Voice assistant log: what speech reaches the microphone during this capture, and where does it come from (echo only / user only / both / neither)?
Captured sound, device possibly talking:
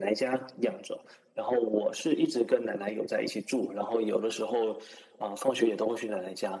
echo only